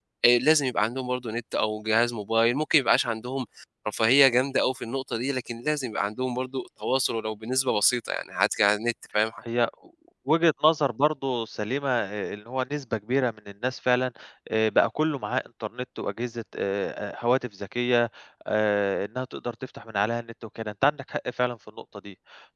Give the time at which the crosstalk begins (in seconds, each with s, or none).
none